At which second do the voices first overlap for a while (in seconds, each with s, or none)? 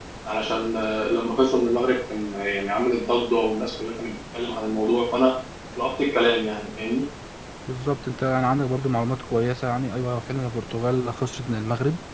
none